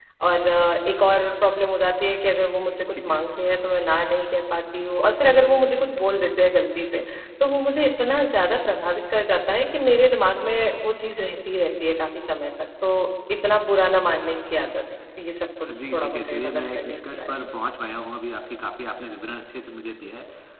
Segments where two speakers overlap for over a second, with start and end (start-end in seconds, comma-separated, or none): 15.6-17.5